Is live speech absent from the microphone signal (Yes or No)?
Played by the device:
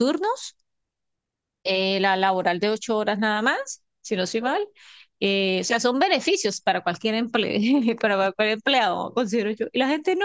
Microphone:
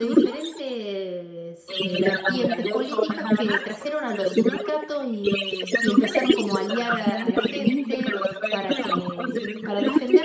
No